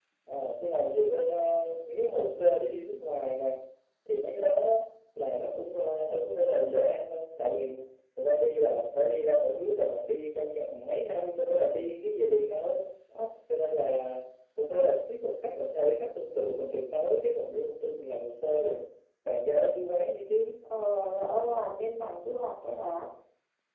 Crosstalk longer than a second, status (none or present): none